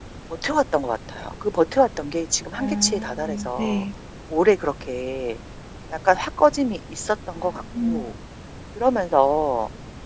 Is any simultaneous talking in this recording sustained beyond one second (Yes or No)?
Yes